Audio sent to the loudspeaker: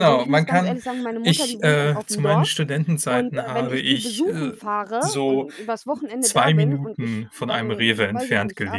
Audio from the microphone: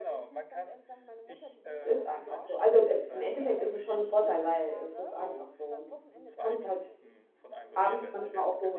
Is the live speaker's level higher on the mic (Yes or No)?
Yes